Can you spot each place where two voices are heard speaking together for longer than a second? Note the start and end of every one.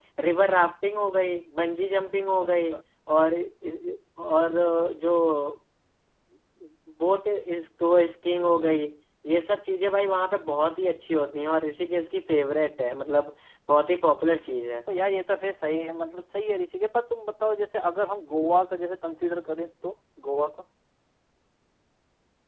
none

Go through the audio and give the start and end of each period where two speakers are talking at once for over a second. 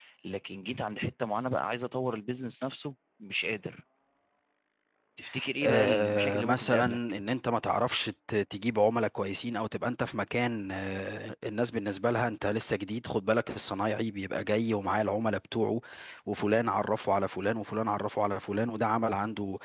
5.6-7.0

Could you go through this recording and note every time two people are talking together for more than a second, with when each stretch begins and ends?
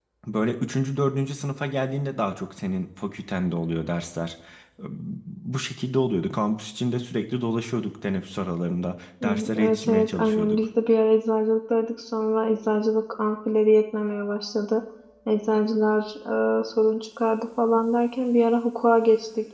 9.2-10.6

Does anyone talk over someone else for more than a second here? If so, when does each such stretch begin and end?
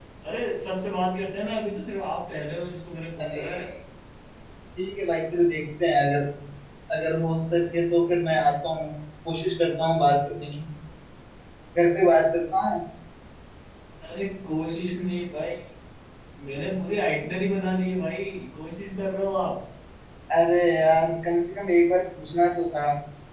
none

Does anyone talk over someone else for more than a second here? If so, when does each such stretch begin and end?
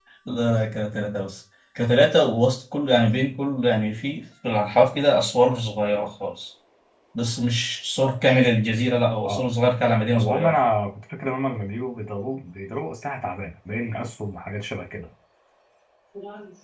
none

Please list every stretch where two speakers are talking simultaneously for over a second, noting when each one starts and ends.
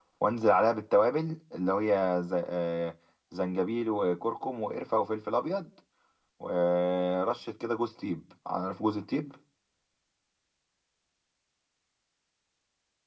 none

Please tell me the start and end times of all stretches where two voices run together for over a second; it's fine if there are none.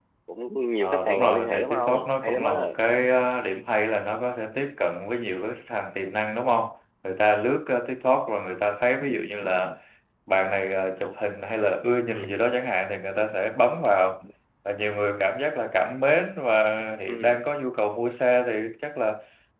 0.8-2.5

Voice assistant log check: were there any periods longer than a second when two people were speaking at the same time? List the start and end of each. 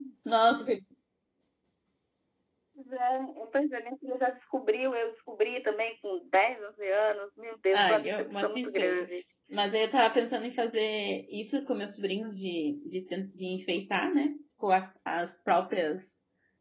7.7-9.1

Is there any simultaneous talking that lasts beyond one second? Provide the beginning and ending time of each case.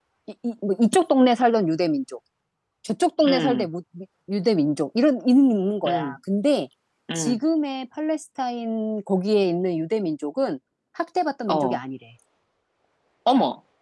none

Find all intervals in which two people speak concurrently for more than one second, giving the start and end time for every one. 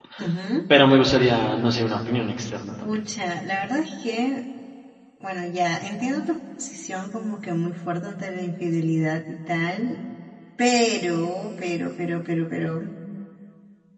none

